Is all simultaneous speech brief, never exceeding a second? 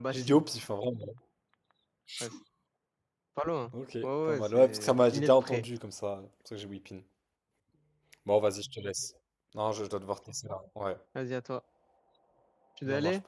No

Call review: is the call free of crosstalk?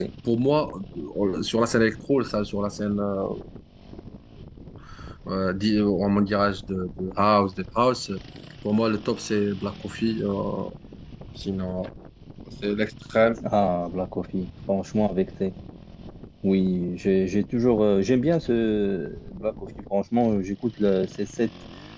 Yes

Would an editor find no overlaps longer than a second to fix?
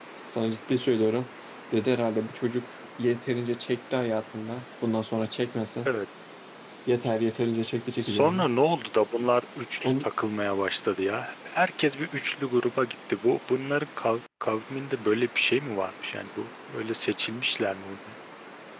Yes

